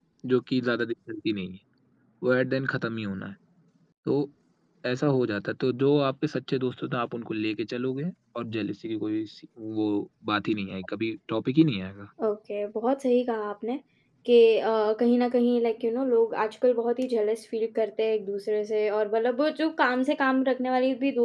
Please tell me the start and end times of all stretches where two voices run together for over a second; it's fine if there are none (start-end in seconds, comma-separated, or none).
none